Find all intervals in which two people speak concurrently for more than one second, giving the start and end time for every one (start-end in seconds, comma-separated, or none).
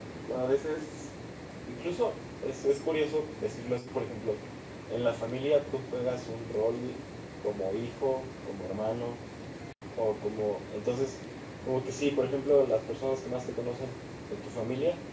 none